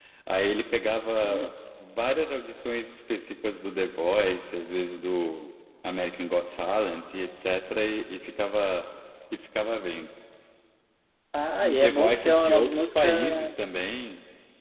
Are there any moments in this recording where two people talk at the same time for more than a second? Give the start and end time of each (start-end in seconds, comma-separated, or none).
11.6-13.5